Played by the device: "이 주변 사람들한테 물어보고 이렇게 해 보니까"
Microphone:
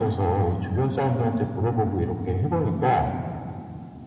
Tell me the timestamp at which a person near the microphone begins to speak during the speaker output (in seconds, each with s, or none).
none